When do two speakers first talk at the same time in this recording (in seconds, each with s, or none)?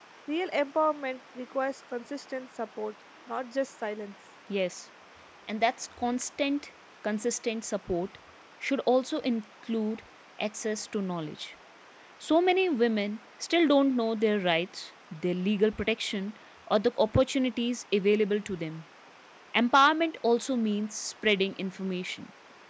none